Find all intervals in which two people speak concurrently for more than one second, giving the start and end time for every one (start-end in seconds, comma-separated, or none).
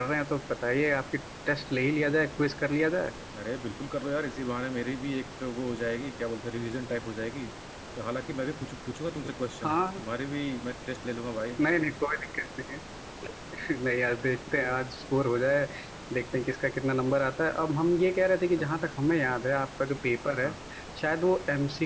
none